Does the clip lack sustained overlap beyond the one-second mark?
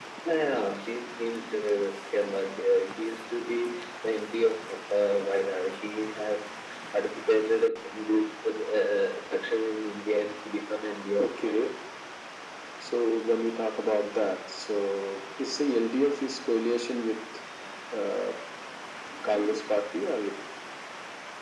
Yes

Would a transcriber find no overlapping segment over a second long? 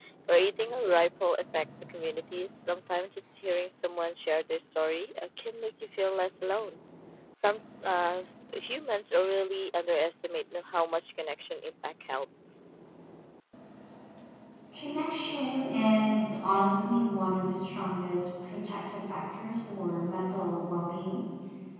Yes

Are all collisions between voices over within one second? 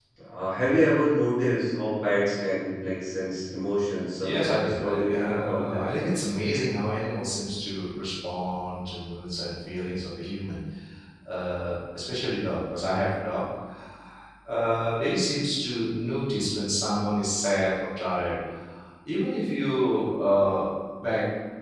No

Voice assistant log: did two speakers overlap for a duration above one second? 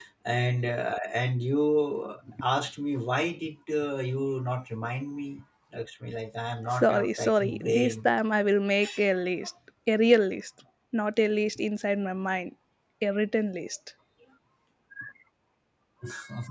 Yes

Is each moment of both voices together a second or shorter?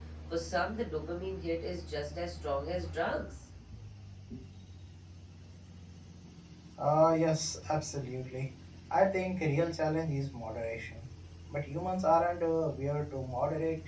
Yes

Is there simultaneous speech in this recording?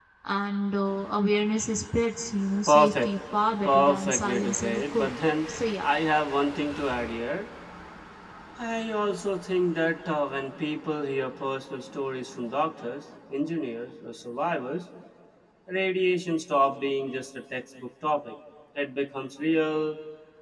Yes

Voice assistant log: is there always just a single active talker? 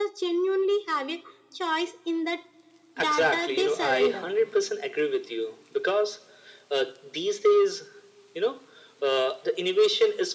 No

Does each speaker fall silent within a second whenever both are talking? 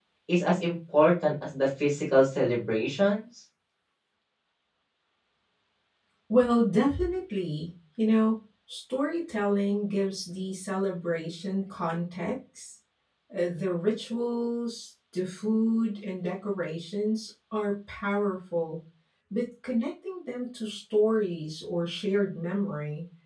Yes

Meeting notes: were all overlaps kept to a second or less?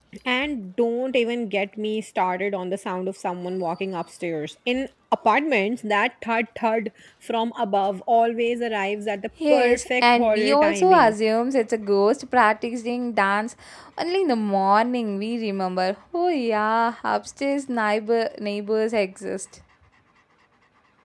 No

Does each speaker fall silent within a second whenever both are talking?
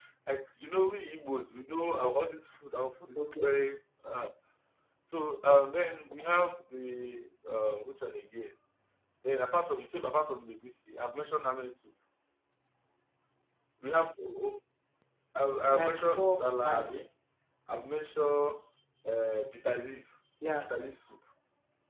No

